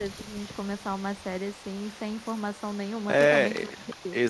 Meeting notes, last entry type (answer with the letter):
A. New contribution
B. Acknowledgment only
A